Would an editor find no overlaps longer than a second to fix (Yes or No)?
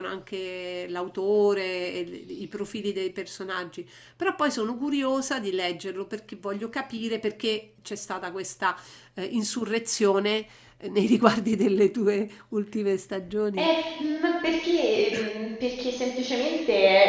Yes